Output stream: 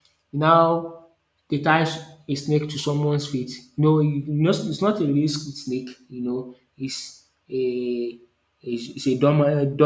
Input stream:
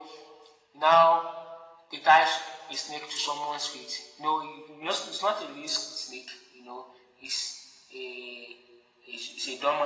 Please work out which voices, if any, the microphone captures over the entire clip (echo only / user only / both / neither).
echo only